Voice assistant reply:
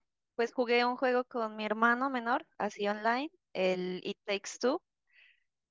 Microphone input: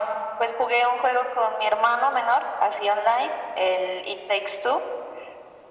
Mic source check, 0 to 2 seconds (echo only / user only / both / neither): echo only